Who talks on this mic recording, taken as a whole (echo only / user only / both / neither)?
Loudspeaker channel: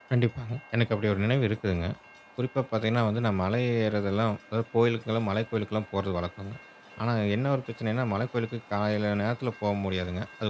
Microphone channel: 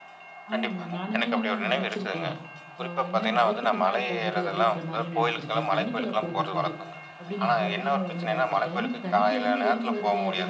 both